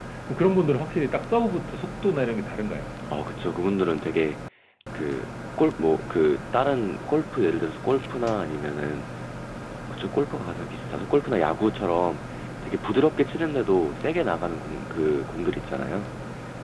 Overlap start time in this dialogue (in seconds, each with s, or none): none